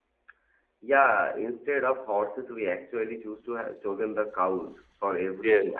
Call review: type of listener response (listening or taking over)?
listening